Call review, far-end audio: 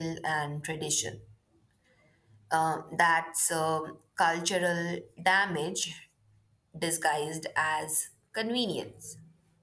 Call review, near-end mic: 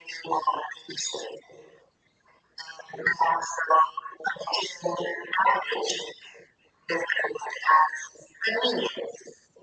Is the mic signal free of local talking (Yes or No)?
Yes